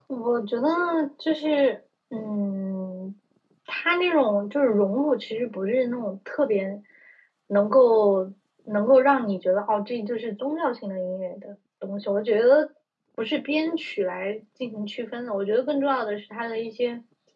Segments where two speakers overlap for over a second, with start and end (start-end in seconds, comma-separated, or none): none